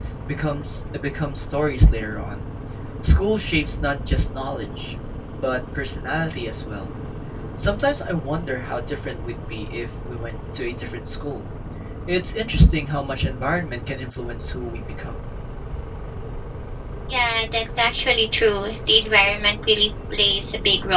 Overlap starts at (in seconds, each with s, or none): none